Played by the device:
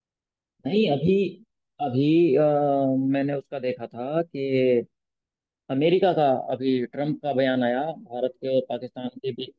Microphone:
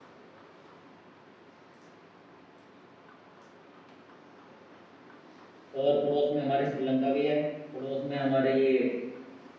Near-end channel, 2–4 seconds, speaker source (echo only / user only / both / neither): neither